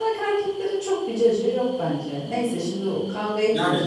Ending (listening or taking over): taking over